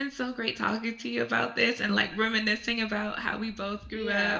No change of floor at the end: No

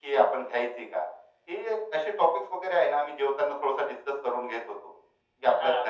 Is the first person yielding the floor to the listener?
Yes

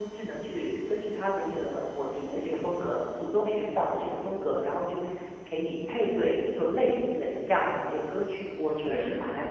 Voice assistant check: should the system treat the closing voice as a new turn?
Yes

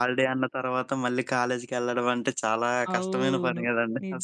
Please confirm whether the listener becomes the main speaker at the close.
Yes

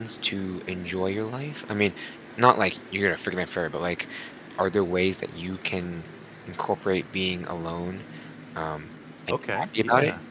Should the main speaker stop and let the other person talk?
Yes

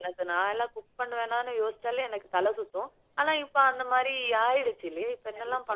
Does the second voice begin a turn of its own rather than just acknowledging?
Yes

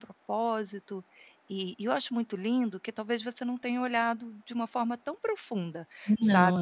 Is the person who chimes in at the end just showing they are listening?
Yes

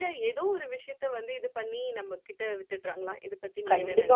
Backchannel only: No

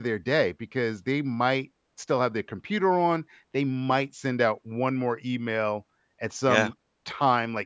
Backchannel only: Yes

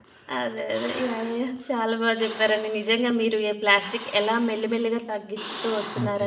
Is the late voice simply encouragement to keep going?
Yes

